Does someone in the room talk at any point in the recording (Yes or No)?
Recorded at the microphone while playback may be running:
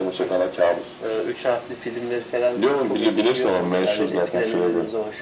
No